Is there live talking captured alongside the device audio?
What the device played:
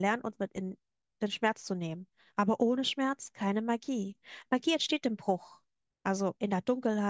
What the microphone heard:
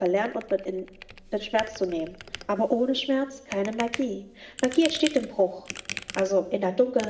No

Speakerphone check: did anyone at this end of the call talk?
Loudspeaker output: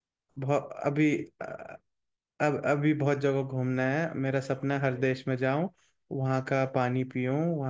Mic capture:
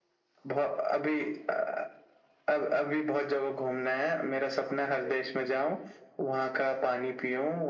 No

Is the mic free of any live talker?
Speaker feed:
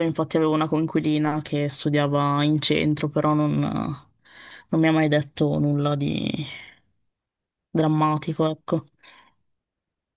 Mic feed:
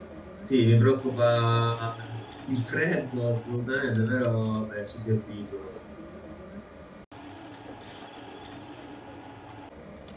No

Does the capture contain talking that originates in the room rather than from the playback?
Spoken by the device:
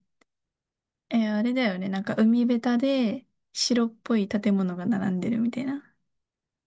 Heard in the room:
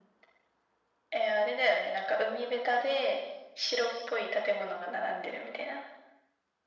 No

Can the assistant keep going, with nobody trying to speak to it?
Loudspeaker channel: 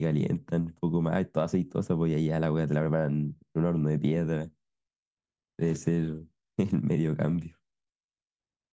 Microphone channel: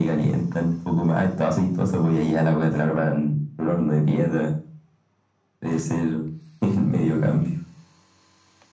Yes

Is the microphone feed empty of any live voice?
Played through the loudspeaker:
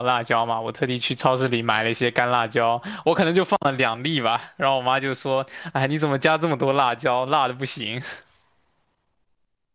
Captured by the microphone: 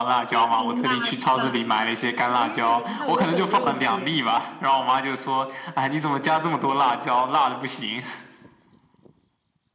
No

